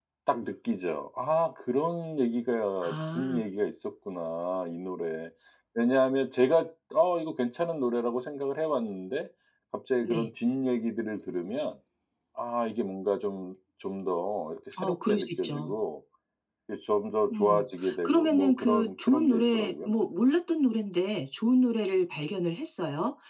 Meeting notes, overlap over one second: present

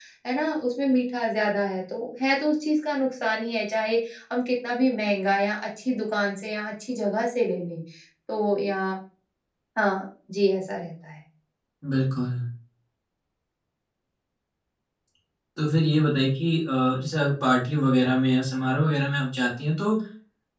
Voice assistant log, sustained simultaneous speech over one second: none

